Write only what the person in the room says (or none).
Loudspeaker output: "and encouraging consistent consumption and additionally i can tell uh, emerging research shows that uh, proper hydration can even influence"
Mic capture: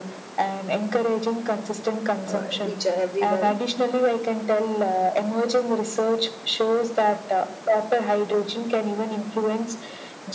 uh, each and everyone